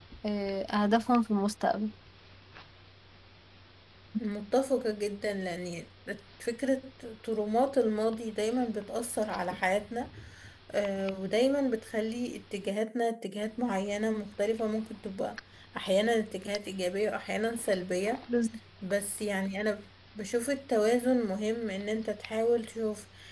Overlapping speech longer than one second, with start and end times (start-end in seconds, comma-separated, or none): none